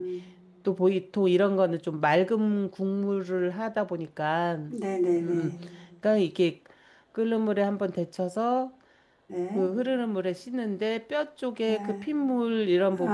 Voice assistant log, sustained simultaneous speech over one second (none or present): none